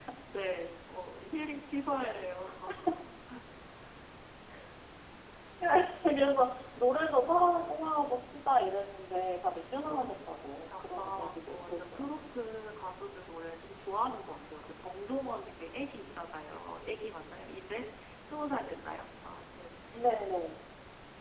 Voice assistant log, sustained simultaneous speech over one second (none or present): present